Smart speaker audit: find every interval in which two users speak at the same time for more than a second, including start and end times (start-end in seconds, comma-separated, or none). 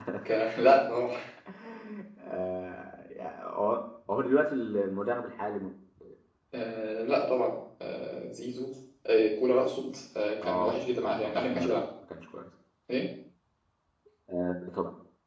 10.4-11.8